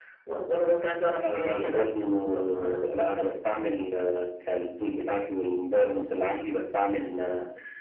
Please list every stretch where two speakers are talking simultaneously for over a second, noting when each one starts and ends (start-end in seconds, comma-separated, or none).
1.2-2.9